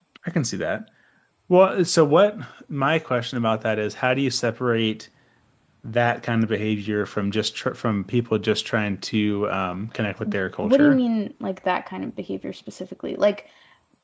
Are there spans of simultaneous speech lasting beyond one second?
No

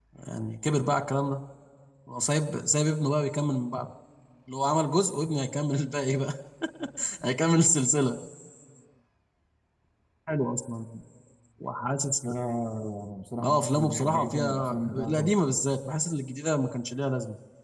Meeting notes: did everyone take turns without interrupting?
No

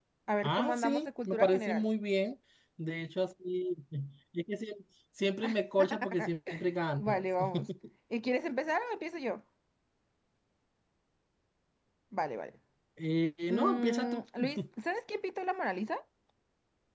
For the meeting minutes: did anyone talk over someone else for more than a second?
Yes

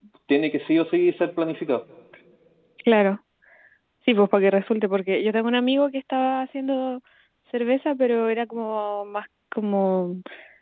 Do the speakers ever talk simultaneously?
No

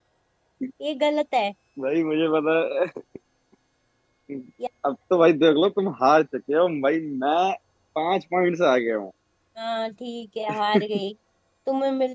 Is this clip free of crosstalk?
Yes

